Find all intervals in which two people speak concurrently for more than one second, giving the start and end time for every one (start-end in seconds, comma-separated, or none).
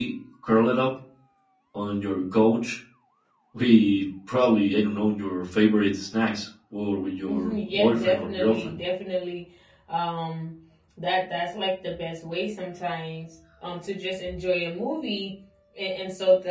7.3-8.8